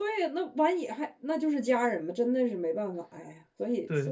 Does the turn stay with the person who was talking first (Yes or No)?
No